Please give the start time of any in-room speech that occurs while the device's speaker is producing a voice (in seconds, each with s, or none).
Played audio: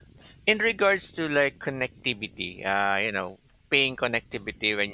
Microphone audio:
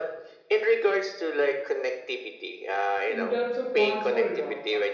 3.0 s